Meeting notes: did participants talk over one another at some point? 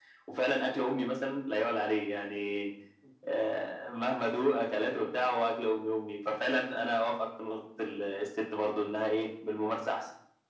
No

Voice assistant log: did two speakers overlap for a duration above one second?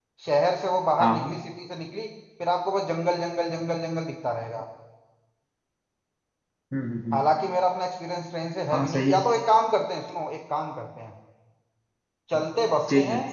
No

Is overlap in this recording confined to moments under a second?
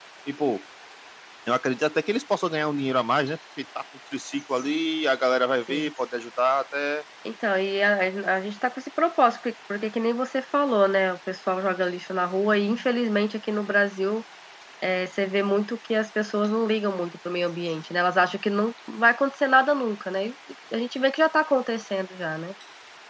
Yes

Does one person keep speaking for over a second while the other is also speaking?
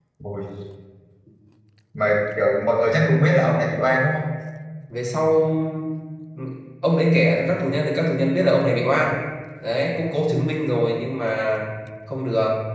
No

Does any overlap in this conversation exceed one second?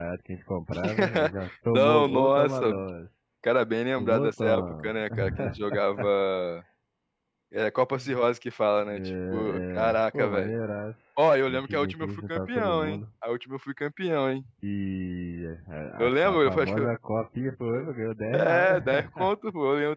Yes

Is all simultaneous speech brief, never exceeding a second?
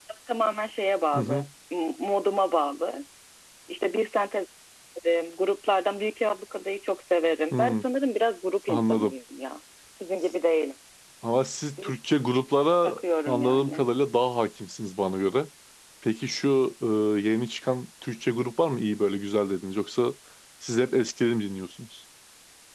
No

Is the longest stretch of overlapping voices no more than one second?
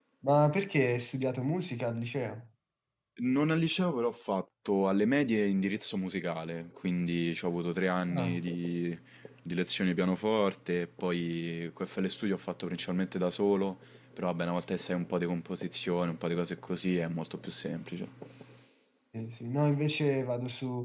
Yes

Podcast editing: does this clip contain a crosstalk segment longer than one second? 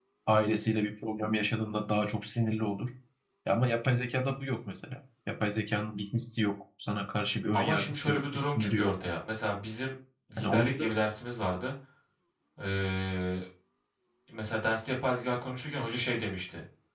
Yes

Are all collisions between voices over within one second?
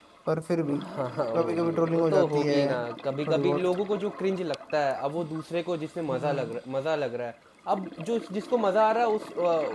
No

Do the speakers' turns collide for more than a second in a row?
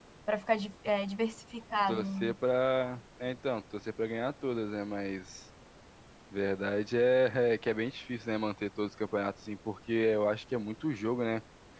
No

